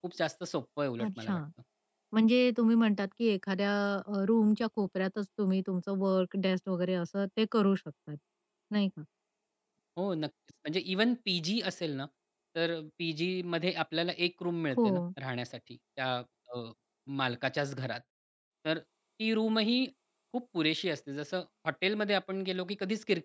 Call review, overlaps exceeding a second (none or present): none